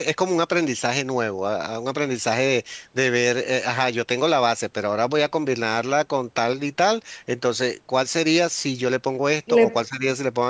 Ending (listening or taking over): listening